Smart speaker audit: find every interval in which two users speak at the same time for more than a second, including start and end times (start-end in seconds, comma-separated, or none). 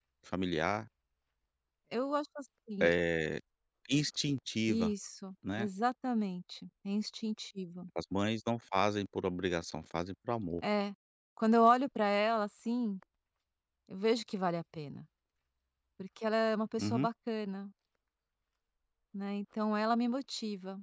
none